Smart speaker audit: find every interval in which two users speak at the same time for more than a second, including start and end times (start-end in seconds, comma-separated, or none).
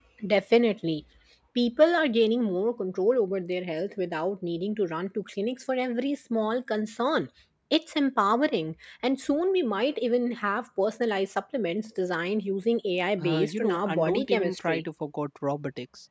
13.2-14.8